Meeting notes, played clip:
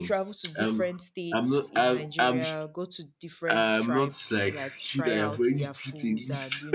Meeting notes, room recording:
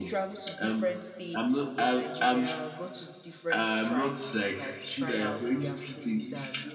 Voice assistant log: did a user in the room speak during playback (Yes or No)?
No